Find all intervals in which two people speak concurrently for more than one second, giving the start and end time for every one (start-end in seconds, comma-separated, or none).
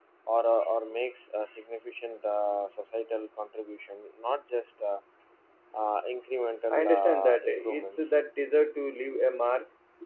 6.7-8.2